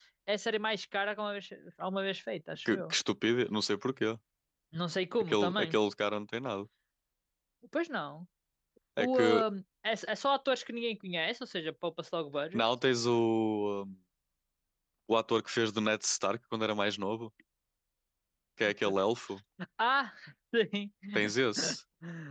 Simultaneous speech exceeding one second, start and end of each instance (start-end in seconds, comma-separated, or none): none